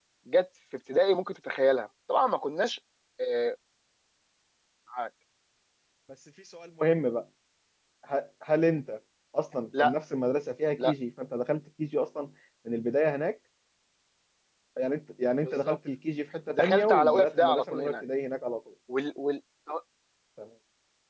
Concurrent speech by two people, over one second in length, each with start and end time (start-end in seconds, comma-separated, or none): 16.6-18.0